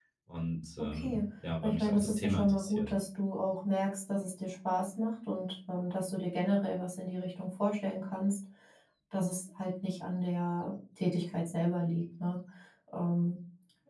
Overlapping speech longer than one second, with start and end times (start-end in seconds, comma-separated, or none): 1.6-2.9